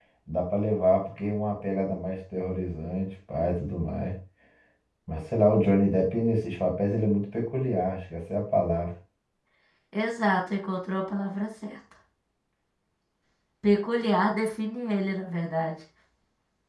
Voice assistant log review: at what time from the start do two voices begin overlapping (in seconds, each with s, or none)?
none